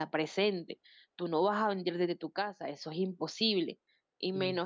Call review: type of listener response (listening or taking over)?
listening